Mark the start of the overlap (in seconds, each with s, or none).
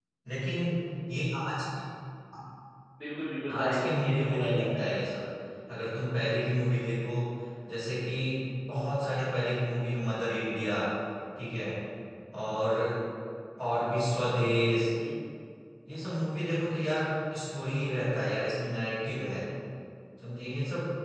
3.5 s